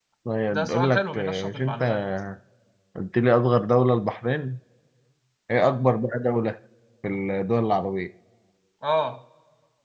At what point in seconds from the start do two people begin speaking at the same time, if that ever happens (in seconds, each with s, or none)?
0.5 s